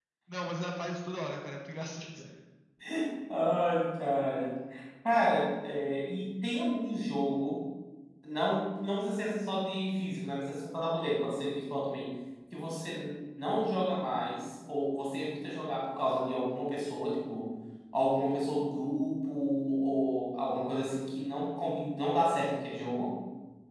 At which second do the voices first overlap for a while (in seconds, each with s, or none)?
none